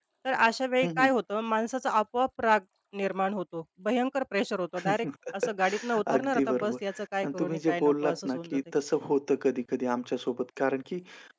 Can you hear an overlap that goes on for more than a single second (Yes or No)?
Yes